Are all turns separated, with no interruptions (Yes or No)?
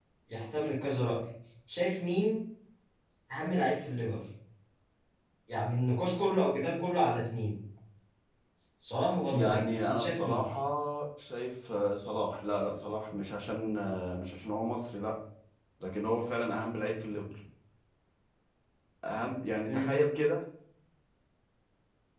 No